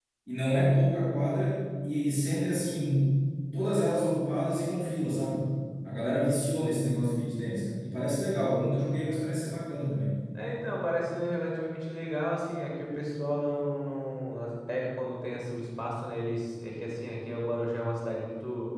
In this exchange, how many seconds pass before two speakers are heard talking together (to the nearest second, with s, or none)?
none